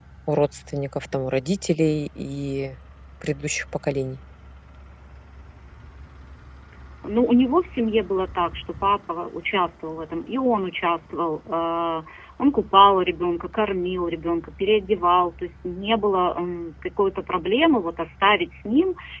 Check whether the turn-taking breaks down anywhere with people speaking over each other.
No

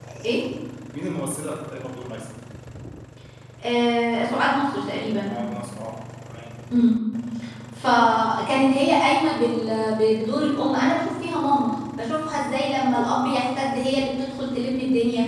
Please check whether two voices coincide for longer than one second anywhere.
No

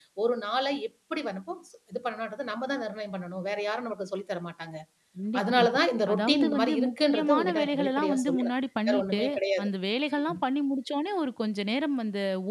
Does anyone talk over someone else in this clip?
Yes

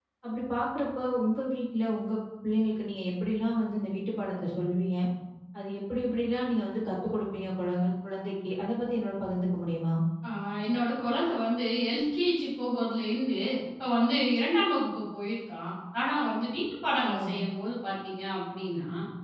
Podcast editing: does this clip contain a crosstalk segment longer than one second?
No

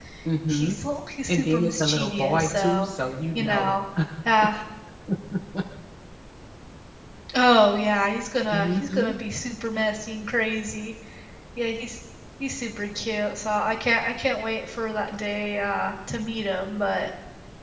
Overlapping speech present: Yes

